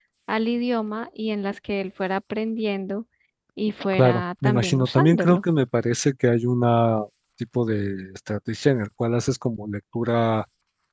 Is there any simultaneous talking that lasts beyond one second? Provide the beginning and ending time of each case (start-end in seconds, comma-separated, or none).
3.9-5.4